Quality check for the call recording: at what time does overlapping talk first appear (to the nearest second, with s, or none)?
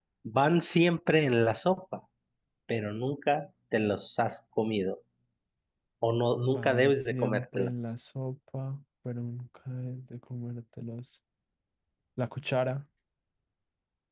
6 s